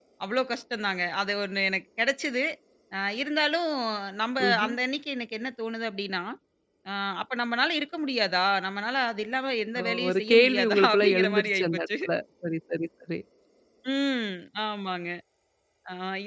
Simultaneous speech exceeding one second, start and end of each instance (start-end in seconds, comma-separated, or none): 9.8-11.8